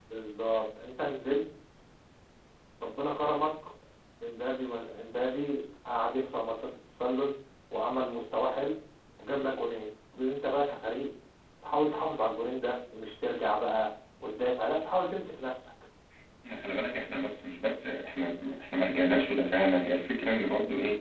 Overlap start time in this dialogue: none

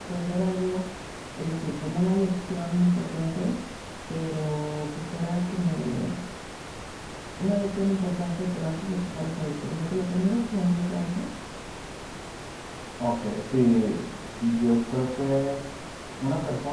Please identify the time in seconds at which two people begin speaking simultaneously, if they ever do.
none

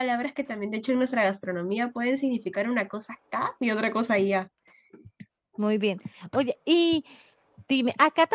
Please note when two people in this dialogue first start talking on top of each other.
none

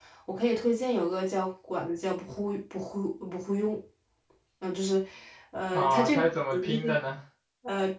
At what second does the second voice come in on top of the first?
5.7 s

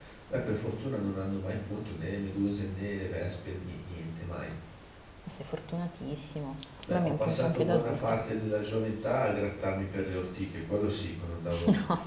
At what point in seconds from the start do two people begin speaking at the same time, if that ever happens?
6.8 s

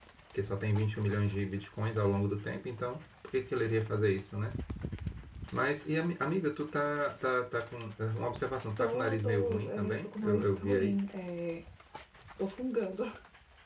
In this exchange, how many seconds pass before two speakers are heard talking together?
8.8 s

